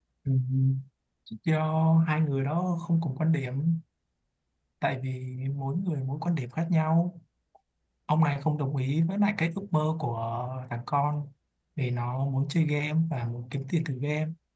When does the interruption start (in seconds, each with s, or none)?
none